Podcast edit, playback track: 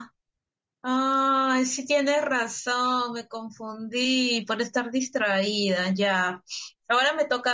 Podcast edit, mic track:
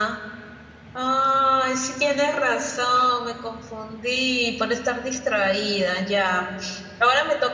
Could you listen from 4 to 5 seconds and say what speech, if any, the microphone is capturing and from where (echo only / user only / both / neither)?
echo only